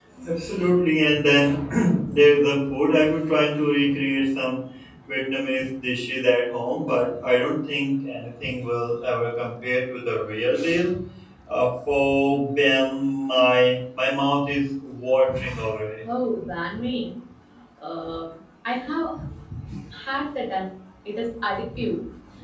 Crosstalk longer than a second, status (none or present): none